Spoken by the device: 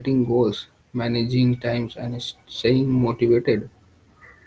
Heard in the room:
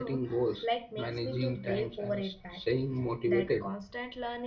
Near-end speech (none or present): present